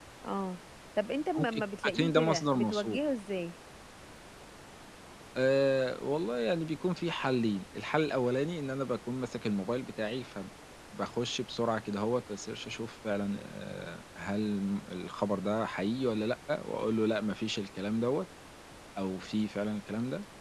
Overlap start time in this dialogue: 1.3 s

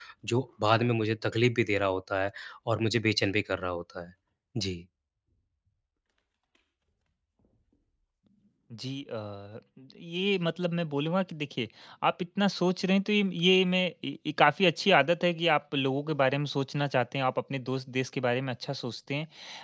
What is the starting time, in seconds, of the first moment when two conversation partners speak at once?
none

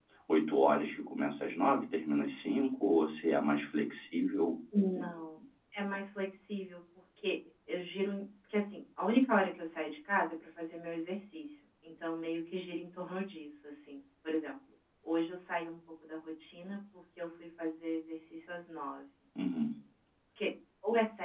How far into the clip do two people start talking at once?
none

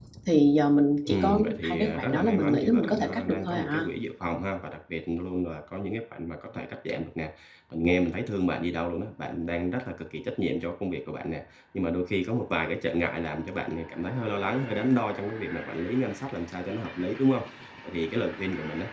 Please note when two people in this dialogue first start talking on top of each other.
1.1 s

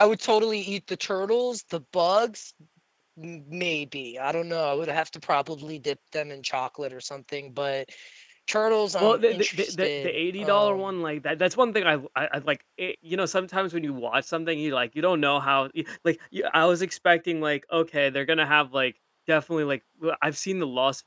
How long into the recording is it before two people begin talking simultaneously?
9.0 s

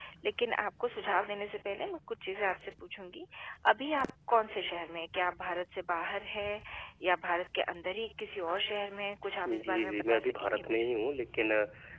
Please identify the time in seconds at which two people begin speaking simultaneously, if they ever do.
9.4 s

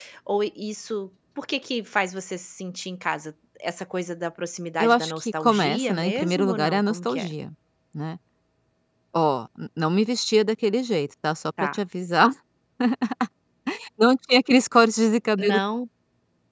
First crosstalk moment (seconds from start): 4.8 s

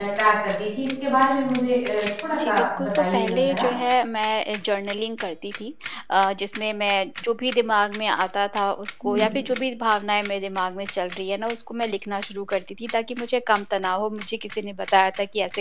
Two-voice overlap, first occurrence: 2.4 s

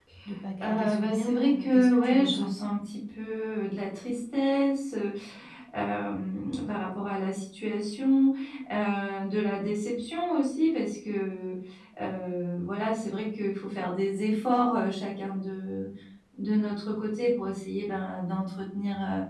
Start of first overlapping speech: 0.6 s

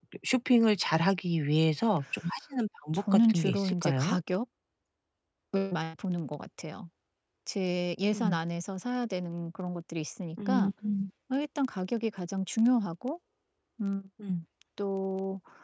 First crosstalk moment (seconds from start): 2.9 s

